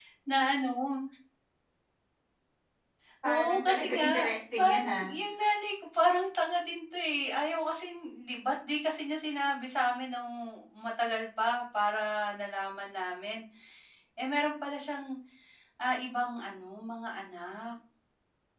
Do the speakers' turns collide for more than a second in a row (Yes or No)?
Yes